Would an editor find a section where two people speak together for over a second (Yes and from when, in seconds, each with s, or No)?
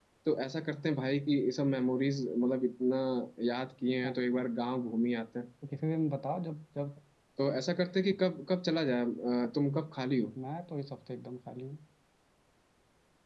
No